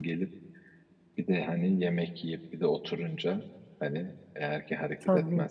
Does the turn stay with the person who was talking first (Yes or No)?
Yes